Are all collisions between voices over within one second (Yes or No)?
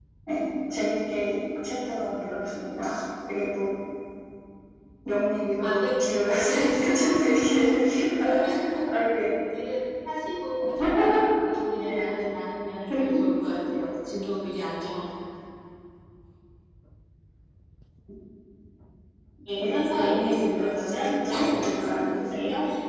No